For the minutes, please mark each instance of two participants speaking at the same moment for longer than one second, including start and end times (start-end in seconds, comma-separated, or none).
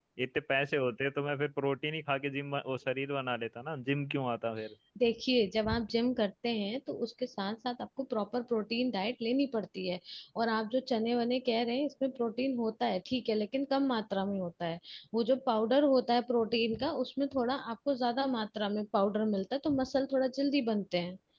none